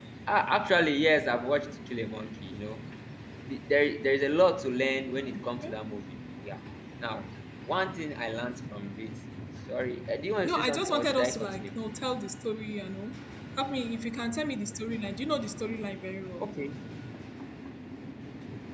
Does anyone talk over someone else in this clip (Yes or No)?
Yes